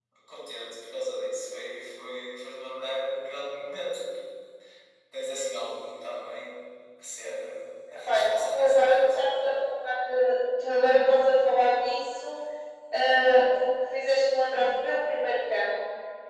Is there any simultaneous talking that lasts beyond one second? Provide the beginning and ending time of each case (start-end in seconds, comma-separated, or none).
8.0-9.2